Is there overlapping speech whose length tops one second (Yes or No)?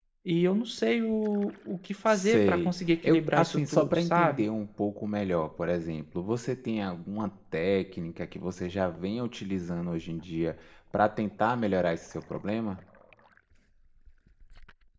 Yes